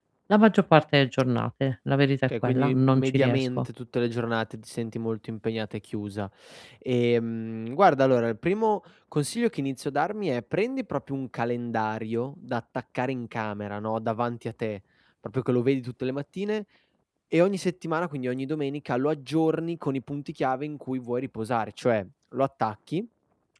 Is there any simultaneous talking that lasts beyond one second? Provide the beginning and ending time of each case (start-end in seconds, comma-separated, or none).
2.4-3.7